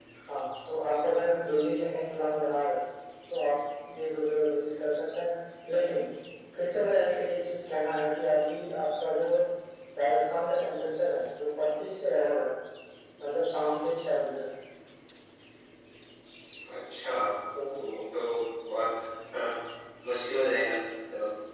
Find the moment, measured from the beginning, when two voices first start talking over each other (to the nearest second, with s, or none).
none